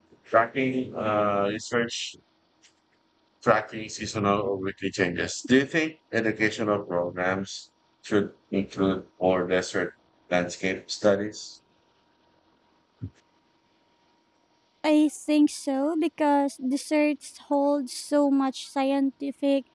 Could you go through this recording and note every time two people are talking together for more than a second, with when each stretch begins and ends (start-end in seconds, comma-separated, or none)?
none